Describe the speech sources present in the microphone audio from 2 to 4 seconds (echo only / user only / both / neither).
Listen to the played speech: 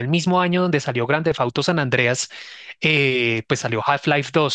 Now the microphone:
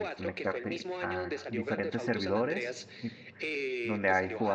both